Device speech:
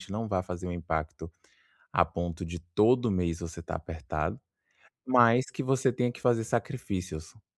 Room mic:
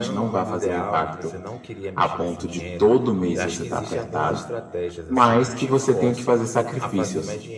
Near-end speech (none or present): present